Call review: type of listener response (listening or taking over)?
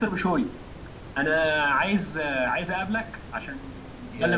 taking over